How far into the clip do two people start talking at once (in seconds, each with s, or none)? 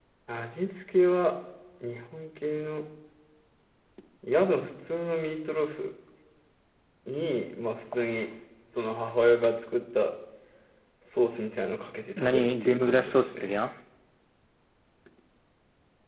12.2 s